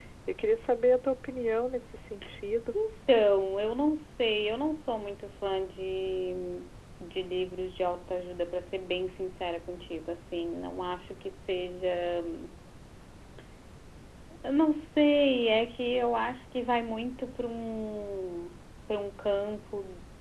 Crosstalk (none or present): none